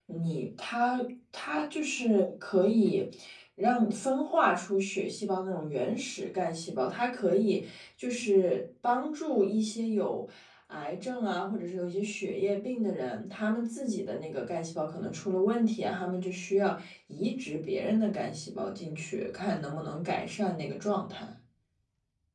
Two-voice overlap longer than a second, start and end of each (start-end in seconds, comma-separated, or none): none